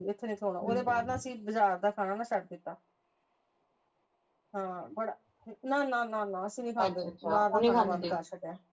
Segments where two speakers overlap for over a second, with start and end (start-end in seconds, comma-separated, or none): 6.8-8.2